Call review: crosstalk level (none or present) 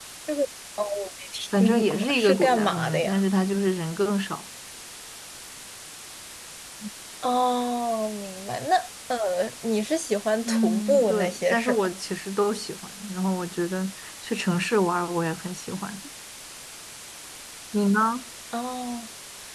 present